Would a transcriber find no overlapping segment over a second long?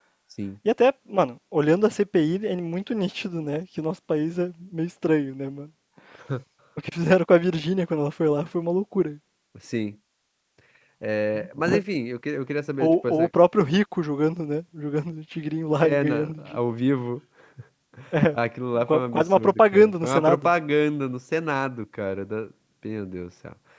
No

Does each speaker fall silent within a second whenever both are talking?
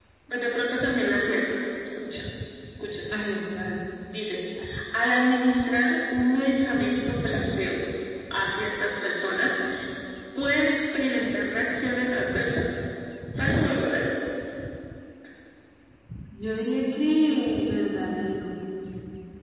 Yes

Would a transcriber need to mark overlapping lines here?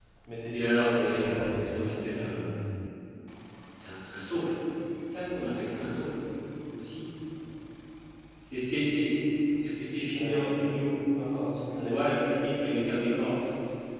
Yes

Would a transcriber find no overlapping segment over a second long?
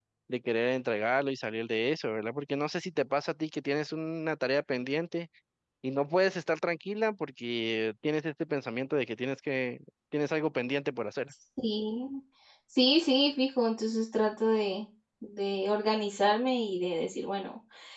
Yes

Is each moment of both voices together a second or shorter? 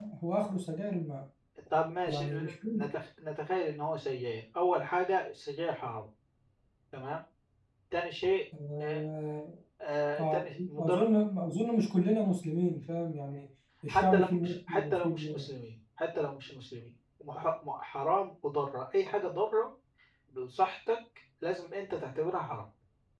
No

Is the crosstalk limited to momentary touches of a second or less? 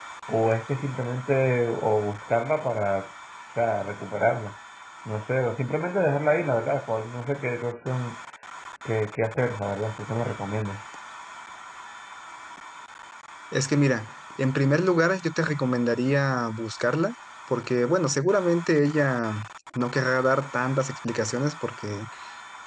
Yes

